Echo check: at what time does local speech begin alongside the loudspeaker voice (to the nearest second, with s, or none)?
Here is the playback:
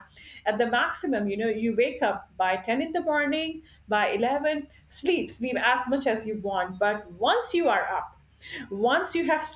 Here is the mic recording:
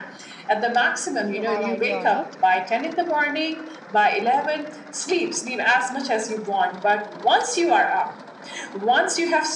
1 s